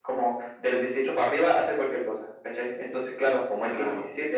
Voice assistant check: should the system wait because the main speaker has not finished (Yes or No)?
Yes